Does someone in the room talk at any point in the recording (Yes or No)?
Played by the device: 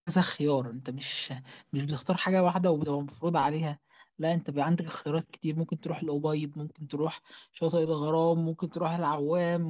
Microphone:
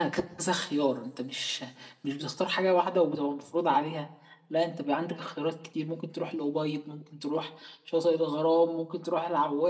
No